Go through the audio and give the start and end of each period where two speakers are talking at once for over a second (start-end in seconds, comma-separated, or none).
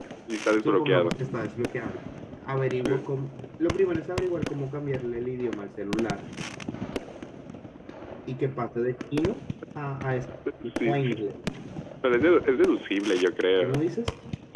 none